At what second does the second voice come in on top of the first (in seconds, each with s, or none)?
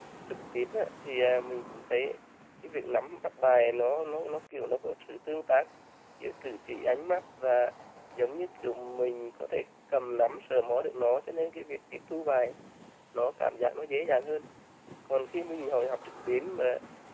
none